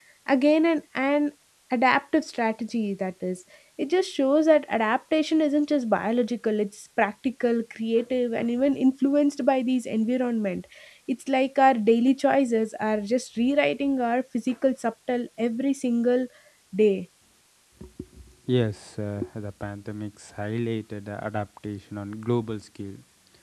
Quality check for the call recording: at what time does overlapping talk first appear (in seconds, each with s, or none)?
none